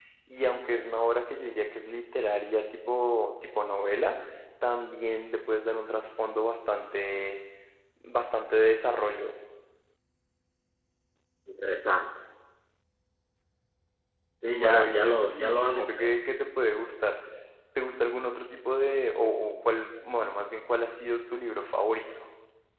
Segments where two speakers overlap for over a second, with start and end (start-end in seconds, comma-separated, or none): 14.5-16.1